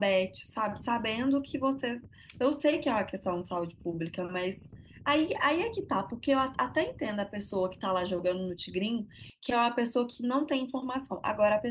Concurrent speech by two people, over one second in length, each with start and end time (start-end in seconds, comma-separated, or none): none